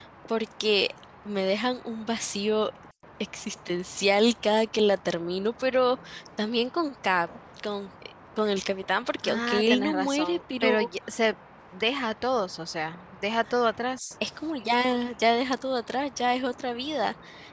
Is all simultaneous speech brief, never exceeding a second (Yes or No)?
No